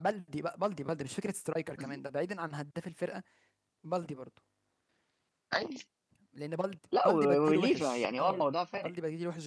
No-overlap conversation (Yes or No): No